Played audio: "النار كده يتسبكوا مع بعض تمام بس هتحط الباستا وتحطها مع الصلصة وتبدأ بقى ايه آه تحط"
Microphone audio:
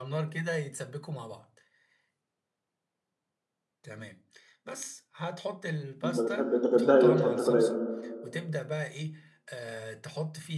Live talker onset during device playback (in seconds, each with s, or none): 6.0 s